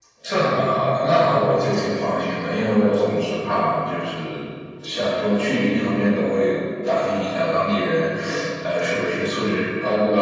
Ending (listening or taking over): listening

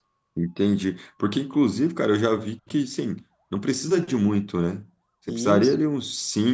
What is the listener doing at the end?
listening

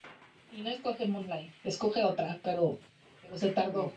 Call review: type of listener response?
taking over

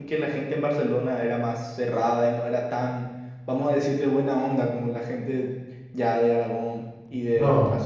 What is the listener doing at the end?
taking over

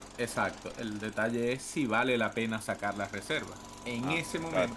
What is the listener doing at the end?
listening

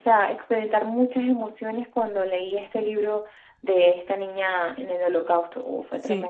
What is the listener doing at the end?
taking over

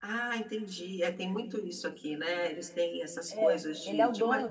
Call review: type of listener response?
taking over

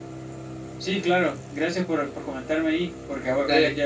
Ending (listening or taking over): listening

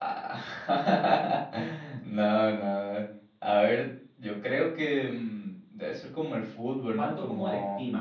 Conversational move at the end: taking over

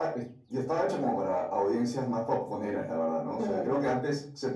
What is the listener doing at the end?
listening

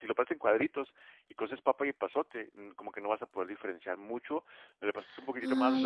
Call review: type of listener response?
taking over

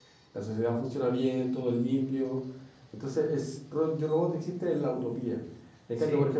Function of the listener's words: listening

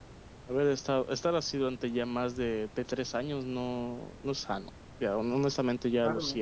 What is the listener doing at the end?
taking over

